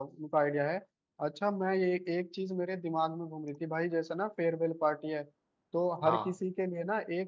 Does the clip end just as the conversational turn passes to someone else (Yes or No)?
No